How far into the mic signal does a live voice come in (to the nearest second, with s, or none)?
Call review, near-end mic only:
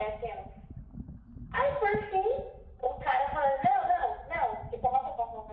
none